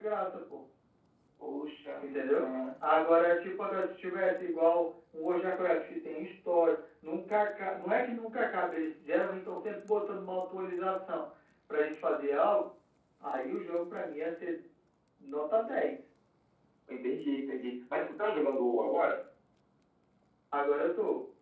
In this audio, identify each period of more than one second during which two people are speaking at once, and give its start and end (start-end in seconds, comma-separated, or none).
none